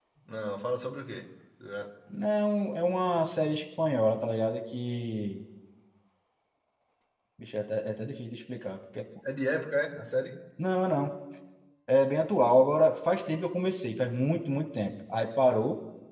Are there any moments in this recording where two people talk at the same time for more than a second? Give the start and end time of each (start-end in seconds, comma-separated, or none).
none